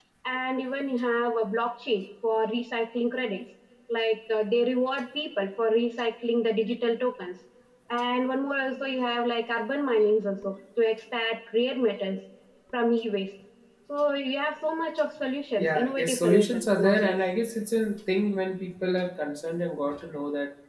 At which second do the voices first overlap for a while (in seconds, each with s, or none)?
15.6 s